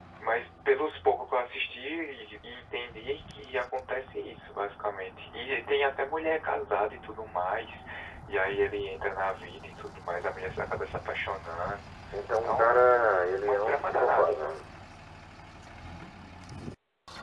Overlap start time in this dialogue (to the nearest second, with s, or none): 12 s